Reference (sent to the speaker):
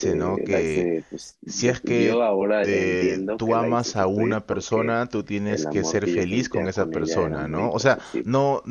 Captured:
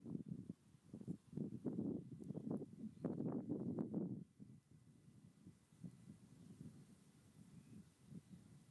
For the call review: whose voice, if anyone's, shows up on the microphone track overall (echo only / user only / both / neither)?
neither